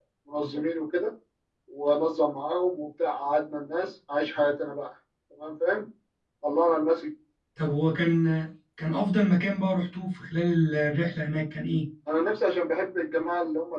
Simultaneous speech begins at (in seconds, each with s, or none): none